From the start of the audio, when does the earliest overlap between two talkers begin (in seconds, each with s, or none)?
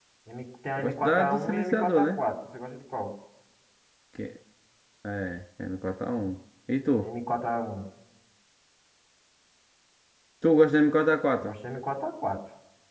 0.8 s